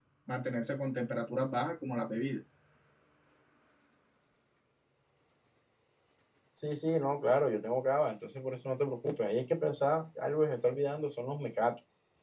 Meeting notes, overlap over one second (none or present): none